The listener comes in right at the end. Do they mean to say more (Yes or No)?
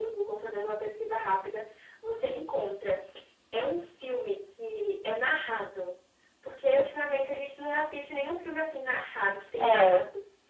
No